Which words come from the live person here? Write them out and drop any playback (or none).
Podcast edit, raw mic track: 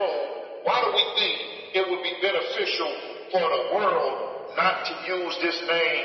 none